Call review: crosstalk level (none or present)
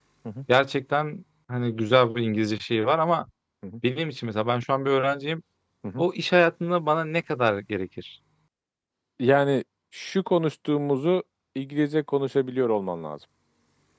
none